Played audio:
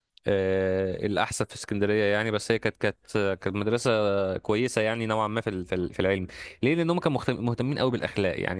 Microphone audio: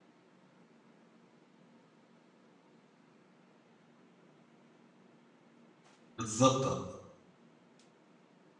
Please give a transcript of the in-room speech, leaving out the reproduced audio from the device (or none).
بالظبط اه